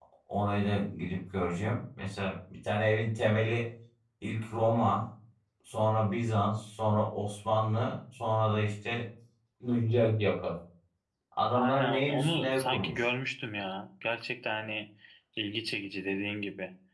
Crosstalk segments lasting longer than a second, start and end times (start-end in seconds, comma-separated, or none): 11.6-13.1